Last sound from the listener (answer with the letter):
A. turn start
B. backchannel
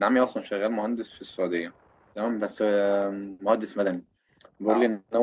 B